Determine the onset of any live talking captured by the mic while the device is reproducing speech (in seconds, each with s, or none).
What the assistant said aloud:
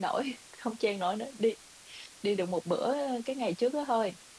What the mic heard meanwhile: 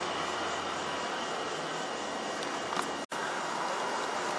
none